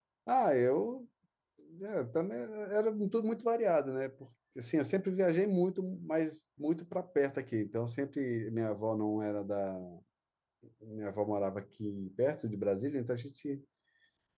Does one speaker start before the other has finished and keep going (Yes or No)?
No